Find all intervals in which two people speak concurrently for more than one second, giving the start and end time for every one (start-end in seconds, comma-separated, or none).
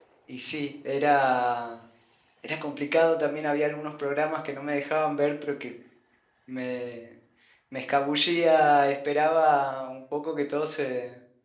none